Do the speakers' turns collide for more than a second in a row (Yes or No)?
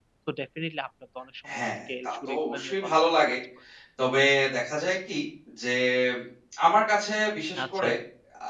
Yes